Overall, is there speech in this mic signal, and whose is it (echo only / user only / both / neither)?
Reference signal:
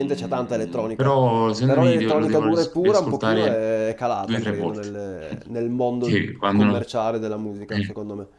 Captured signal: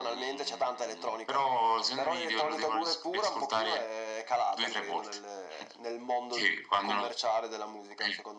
echo only